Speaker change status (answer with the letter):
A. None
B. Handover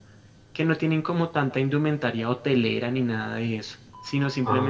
A